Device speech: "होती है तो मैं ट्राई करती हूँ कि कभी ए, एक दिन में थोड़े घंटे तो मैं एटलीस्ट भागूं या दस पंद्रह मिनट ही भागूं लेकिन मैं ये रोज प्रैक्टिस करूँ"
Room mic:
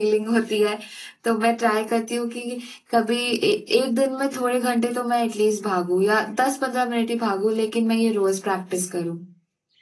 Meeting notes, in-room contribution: none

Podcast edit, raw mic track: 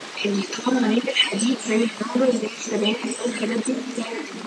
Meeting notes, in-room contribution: none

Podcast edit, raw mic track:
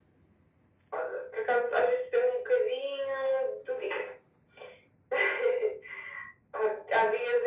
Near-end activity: none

